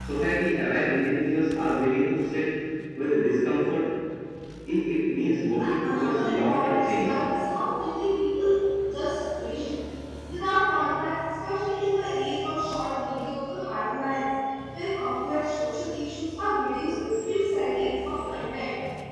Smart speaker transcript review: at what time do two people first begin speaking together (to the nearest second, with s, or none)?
6 s